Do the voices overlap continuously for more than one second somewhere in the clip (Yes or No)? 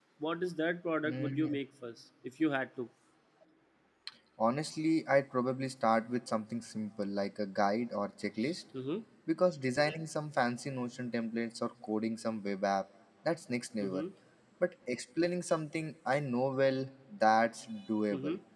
No